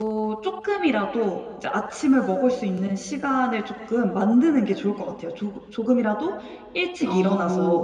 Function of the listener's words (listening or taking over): listening